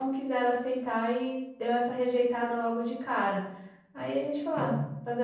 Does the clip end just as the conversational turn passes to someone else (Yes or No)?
No